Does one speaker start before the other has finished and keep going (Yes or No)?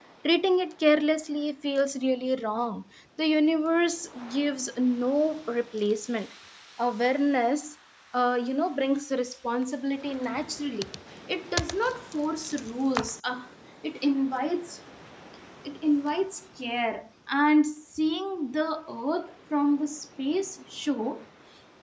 No